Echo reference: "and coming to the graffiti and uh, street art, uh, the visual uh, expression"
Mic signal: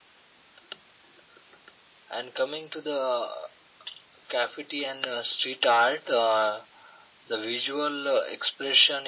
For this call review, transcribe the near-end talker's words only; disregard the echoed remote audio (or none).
none